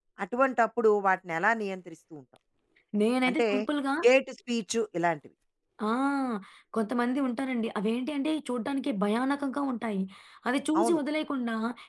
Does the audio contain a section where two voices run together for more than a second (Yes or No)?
No